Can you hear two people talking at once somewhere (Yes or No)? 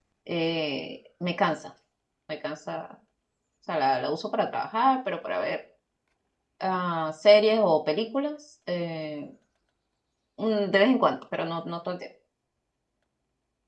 No